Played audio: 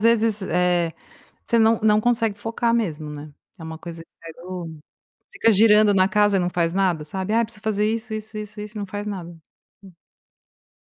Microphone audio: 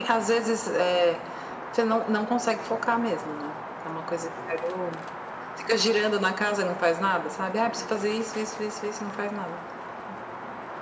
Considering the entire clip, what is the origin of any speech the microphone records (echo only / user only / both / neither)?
echo only